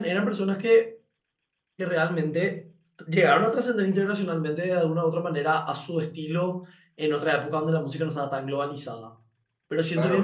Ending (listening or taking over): taking over